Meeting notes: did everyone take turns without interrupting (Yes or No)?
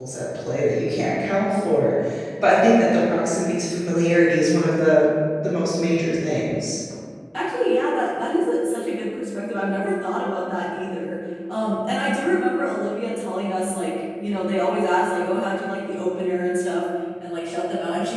Yes